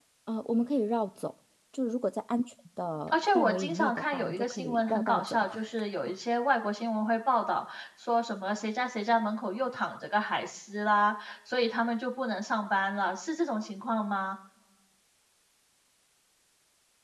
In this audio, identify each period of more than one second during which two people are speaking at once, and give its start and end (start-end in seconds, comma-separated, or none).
3.1-5.4